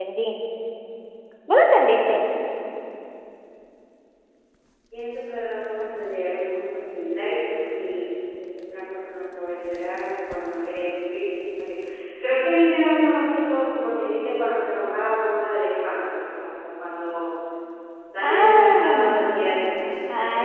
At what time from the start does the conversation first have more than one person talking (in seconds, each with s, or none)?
18.2 s